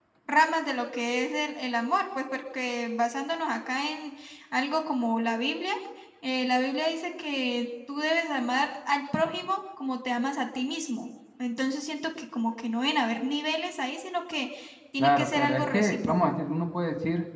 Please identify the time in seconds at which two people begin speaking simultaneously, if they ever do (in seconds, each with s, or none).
15.0 s